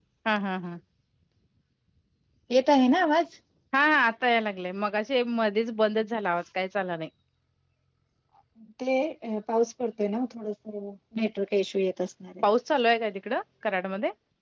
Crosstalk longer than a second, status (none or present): none